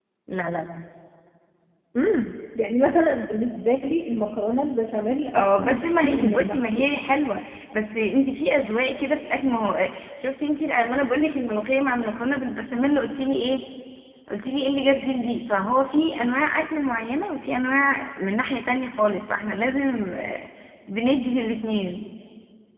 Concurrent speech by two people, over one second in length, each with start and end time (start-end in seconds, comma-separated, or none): 5.3-6.9